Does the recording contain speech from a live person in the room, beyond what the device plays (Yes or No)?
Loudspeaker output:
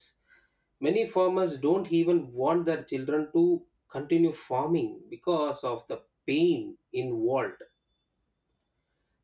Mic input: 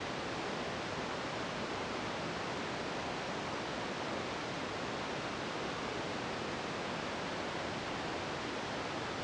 No